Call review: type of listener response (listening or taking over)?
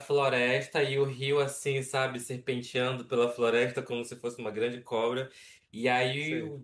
listening